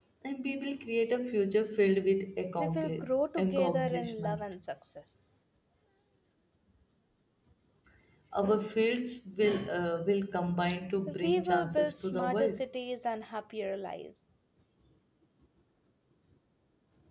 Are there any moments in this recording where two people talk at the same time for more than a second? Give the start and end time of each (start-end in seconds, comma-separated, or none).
2.6-4.4, 11.1-12.6